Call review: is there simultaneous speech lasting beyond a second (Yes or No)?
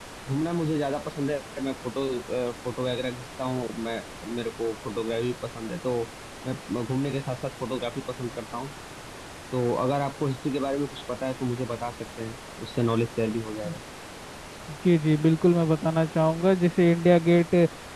No